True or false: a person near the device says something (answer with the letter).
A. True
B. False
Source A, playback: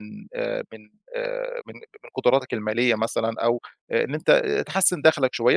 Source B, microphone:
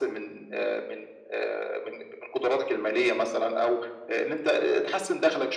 B